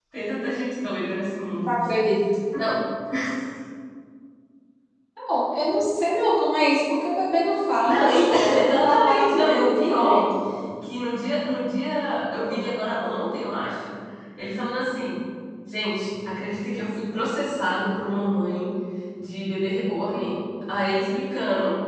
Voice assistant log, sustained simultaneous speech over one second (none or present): present